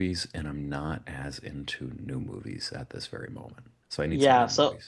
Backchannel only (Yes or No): No